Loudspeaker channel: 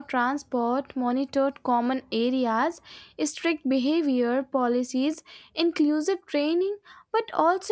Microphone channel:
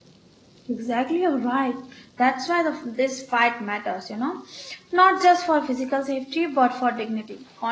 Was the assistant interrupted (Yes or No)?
Yes